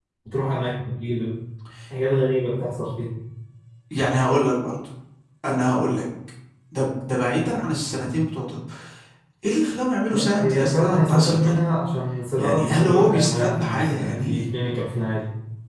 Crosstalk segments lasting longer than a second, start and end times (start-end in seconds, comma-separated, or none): 10.1-11.6, 12.4-14.4